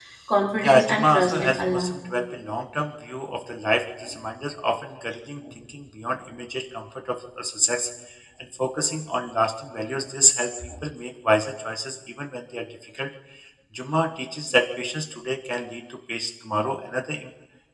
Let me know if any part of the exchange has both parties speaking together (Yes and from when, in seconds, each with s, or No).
Yes, from 0.6 s